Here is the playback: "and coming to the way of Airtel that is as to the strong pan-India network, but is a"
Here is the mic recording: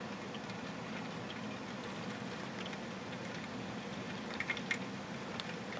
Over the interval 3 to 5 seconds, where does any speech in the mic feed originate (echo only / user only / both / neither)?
neither